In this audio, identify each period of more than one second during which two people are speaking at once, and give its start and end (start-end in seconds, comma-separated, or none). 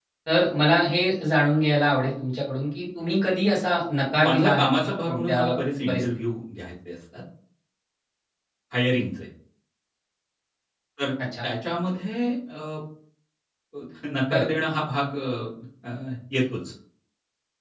4.2-5.4